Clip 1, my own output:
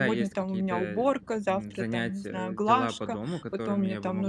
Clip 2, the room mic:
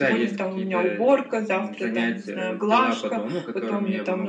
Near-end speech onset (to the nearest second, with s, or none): none